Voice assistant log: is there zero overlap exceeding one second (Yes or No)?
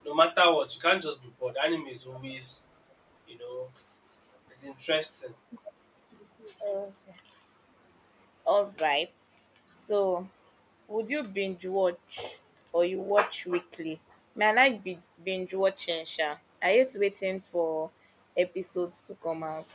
Yes